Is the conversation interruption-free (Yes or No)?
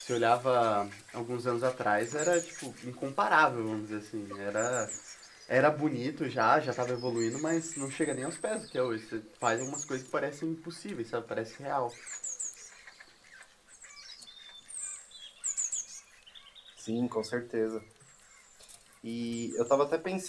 Yes